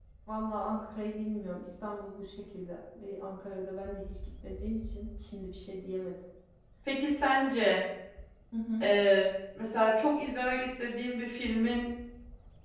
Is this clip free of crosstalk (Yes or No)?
Yes